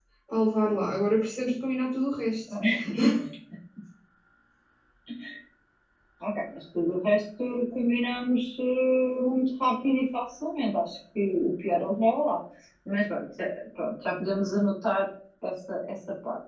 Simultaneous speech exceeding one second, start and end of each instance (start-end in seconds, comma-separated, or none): none